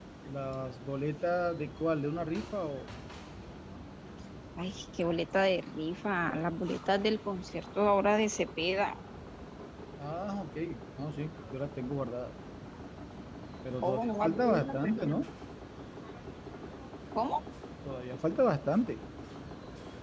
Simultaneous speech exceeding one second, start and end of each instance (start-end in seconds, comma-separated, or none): 13.8-15.2